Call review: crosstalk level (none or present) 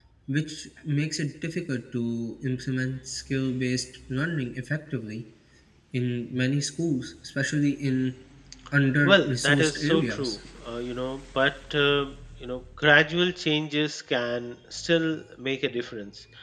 present